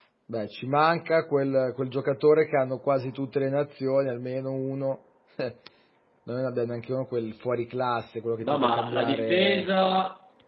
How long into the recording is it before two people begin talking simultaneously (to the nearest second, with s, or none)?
8 s